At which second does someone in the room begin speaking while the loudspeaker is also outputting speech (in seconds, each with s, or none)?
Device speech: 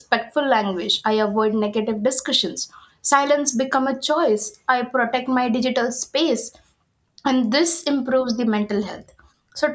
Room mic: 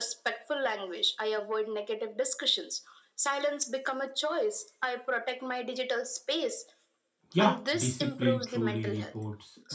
7.3 s